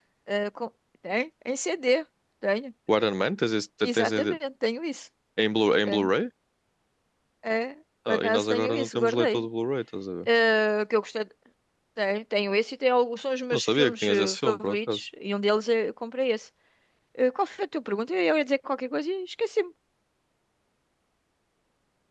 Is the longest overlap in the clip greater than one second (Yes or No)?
Yes